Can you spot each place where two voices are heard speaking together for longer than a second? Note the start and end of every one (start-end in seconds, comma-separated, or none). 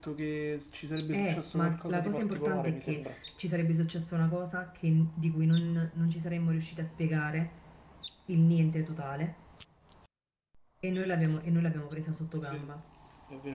1.1-3.2